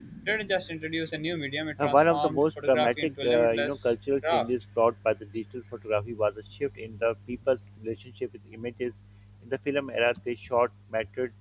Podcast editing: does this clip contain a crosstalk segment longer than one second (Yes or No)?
Yes